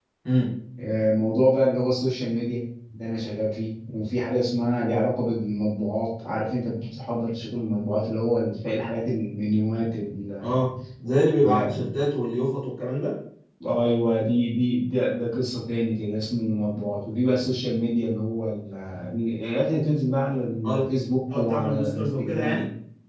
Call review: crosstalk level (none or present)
present